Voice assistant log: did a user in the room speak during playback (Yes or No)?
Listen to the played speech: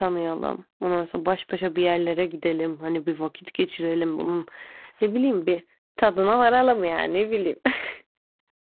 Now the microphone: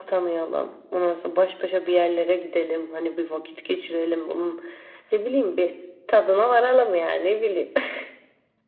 No